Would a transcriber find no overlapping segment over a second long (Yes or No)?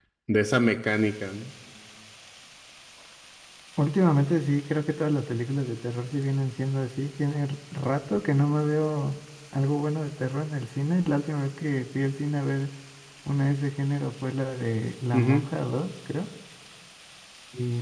Yes